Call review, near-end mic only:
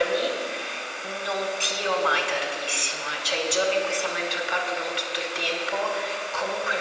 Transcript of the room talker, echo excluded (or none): none